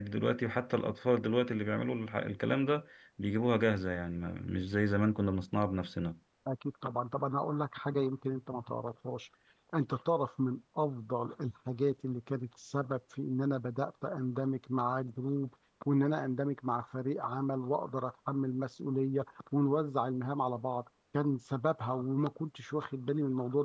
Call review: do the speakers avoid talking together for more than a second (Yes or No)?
Yes